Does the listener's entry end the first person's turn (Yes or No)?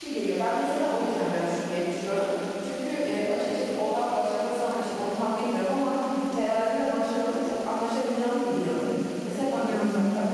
No